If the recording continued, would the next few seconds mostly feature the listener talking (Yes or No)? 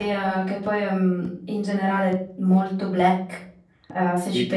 No